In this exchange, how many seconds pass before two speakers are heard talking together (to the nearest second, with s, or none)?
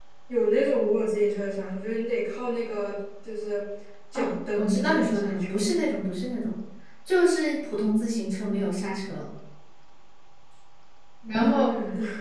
4 s